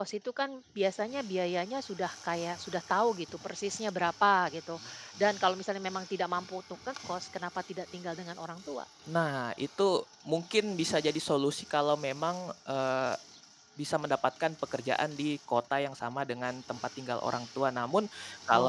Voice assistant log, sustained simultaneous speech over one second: none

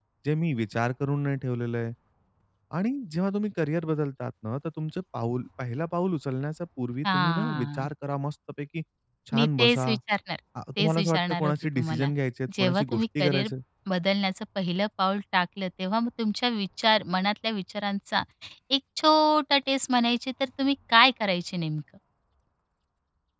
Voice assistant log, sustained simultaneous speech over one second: present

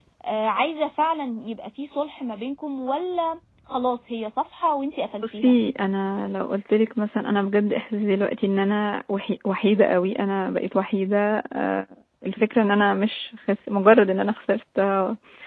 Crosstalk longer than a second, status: none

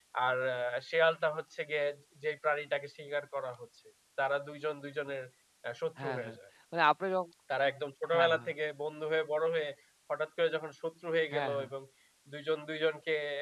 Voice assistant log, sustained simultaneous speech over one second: none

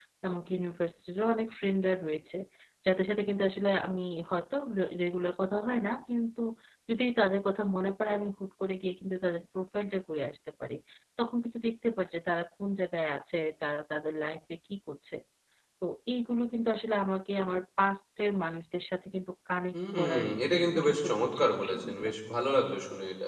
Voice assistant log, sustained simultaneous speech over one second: present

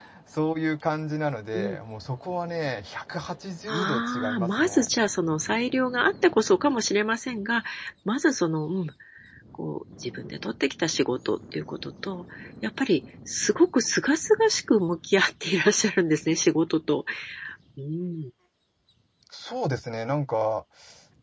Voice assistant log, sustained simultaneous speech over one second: present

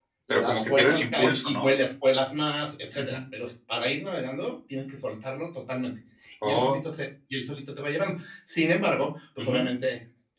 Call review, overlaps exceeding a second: present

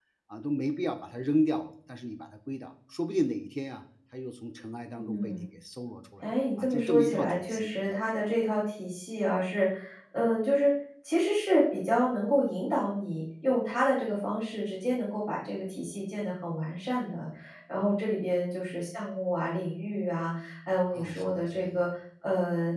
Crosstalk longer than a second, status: present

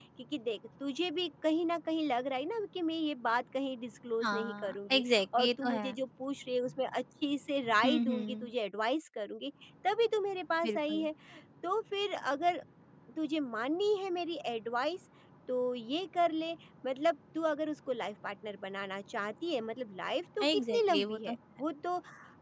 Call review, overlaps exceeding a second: present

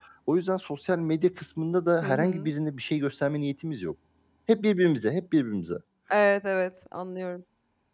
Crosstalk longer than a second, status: none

